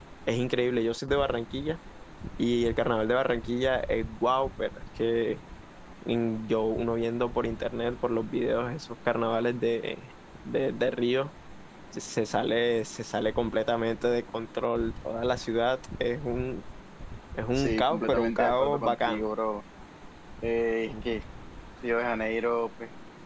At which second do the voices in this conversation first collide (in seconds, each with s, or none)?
17.6 s